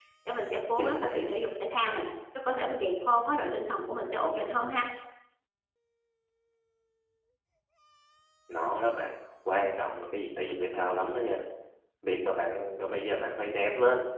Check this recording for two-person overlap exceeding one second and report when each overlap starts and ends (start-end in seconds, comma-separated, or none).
none